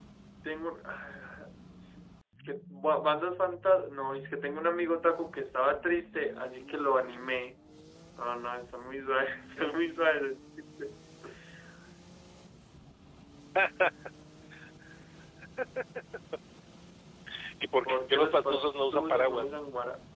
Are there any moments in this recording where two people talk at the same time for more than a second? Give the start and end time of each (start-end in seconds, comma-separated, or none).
17.9-19.5